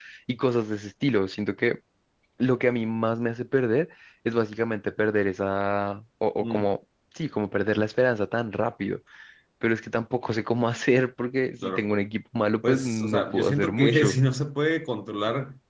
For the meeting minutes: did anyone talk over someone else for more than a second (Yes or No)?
Yes